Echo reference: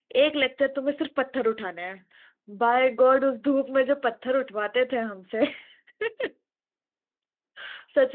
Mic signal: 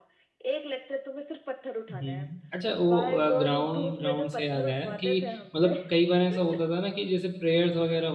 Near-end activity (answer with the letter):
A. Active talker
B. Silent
A